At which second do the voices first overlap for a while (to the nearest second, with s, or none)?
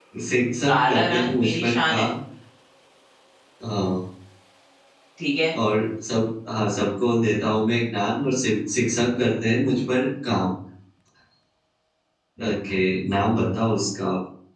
1 s